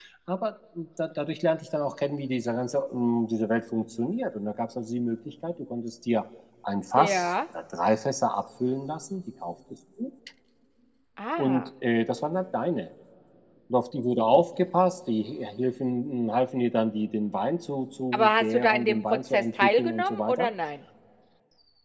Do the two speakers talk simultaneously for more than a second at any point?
Yes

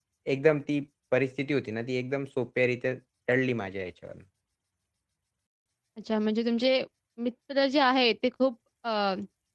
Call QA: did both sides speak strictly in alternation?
Yes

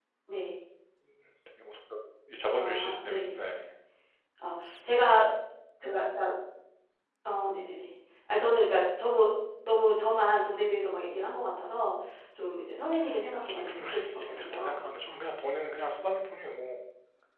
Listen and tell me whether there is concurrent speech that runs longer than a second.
Yes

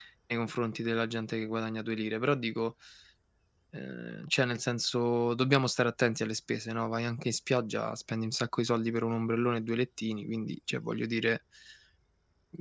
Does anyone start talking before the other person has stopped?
No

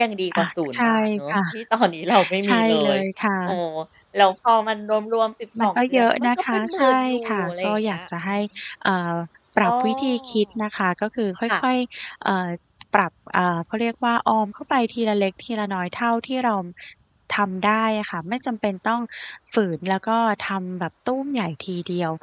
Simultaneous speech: Yes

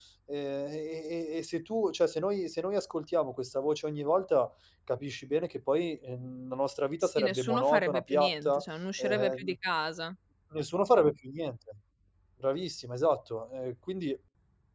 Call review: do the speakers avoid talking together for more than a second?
No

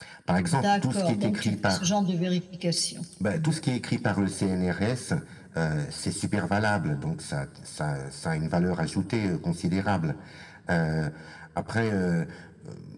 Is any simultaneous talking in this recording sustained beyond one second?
Yes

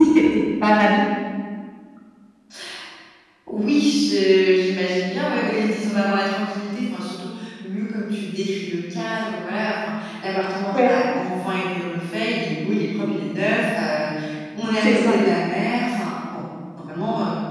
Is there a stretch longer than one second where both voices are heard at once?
No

